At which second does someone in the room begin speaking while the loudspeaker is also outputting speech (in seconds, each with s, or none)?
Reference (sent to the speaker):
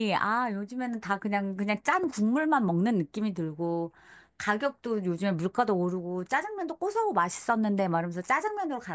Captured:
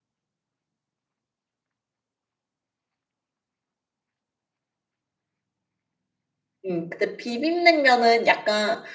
6.7 s